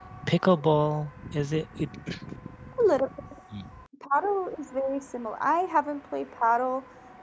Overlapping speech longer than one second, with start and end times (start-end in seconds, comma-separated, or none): none